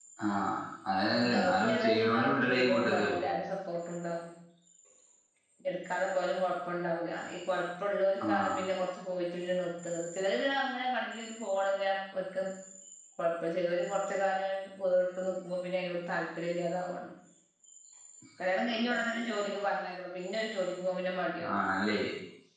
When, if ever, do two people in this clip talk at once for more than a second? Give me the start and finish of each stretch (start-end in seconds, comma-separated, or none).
1.0-3.2